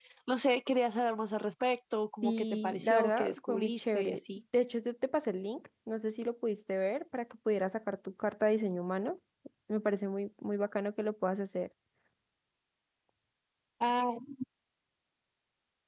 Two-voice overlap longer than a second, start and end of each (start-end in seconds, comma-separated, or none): 2.2-4.4